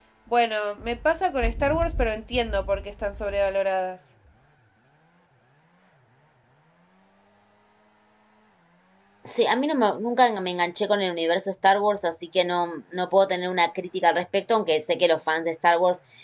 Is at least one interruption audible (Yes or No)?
No